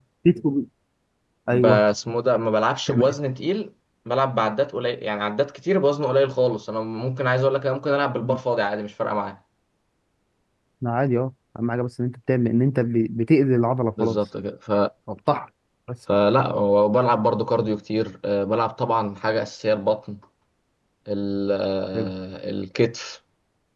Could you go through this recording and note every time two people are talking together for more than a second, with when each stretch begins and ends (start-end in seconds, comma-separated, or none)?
none